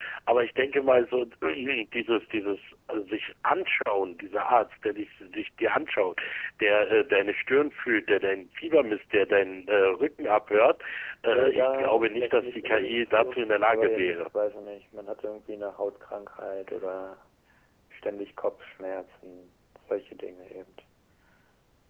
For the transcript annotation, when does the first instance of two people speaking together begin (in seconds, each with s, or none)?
11.3 s